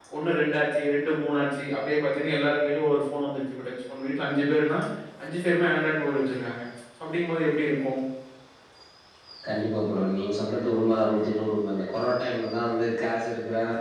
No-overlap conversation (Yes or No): Yes